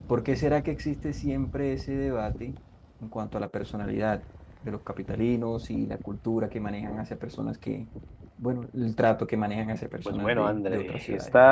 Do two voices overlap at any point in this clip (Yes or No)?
Yes